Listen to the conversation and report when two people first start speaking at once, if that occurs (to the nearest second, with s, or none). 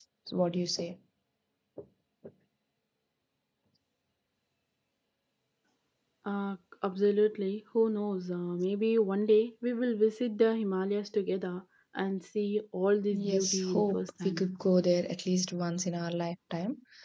13 s